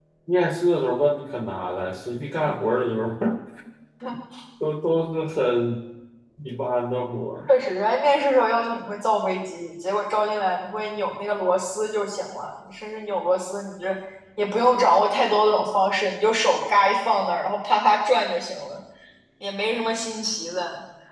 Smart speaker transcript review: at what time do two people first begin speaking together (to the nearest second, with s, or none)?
none